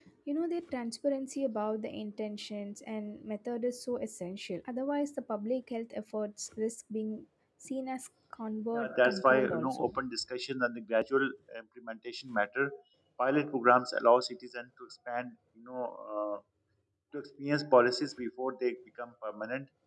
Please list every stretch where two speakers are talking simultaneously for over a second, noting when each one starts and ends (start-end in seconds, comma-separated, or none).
8.7-9.9